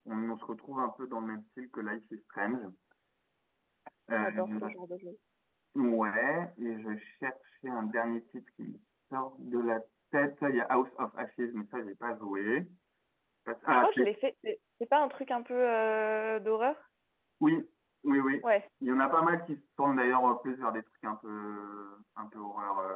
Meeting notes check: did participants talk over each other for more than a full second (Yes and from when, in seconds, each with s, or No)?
No